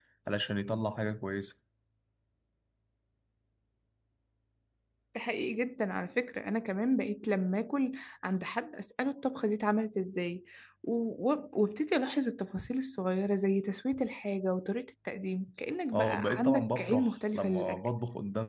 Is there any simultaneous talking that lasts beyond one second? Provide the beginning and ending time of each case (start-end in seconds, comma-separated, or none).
15.9-17.8